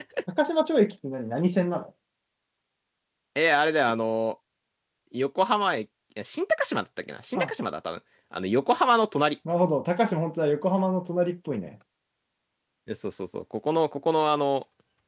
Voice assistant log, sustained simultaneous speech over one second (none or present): none